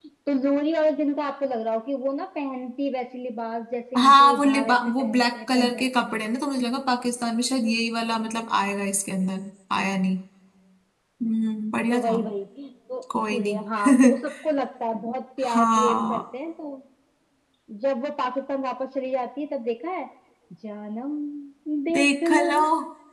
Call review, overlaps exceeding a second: present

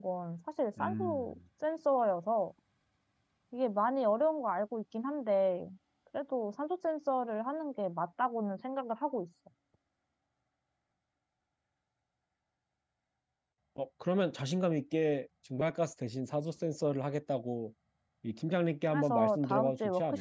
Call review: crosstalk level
present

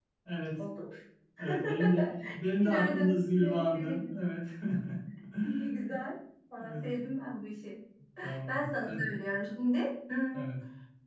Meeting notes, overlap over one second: present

